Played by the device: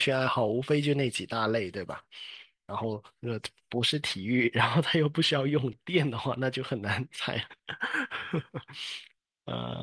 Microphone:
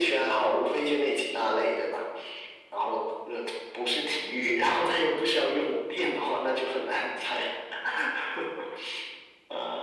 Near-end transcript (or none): none